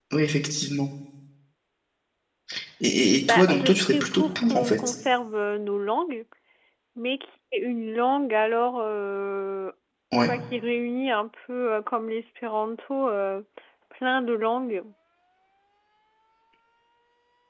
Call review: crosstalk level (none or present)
present